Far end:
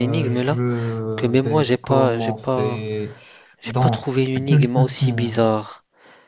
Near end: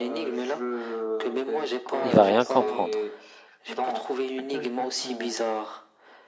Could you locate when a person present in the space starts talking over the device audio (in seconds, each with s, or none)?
2.0 s